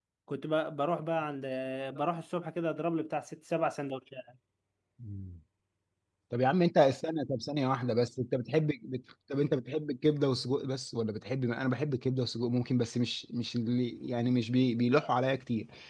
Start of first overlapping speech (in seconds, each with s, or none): none